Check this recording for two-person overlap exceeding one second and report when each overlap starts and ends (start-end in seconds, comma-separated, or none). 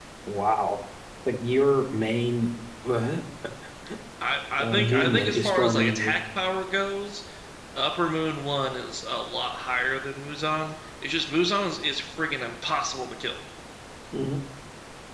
4.6-6.2